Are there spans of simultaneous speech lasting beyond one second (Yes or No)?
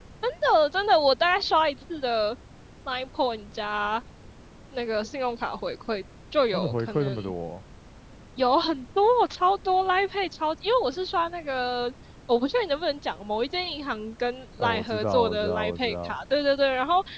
Yes